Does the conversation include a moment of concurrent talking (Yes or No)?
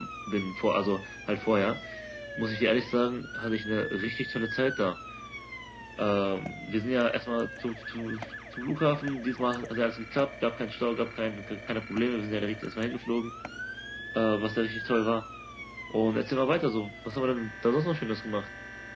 No